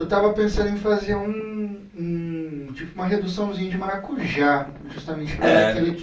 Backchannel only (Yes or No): Yes